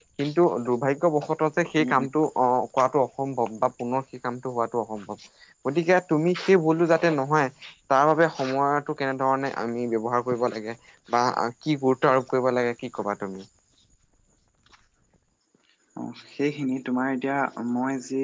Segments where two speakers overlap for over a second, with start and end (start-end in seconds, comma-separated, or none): none